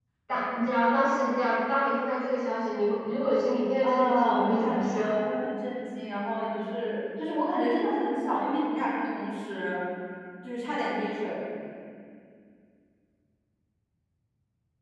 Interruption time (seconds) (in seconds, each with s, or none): 3.8 s